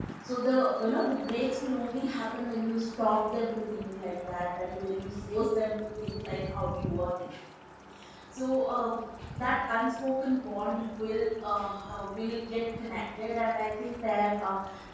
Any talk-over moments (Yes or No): No